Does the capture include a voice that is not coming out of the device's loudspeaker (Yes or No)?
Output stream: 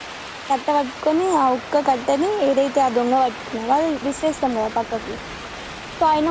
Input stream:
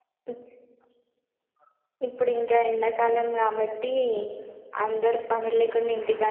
Yes